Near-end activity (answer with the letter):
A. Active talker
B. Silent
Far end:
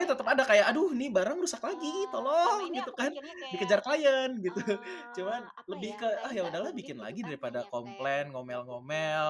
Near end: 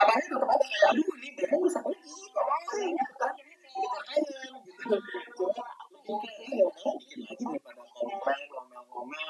B